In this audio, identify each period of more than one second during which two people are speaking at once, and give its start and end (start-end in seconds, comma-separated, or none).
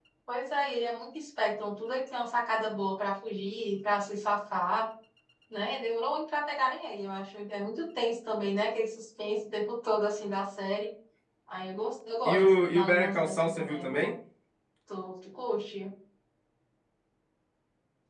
12.2-14.1